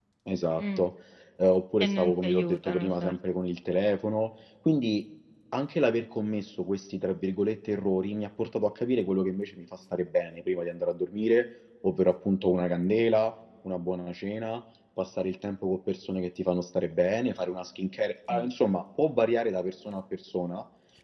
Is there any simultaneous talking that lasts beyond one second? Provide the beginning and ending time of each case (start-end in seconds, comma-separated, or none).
1.8-3.1